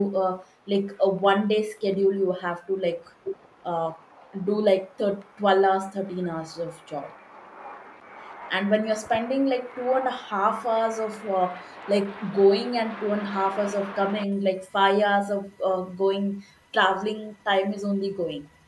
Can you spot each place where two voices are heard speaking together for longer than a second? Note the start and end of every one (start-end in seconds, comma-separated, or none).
none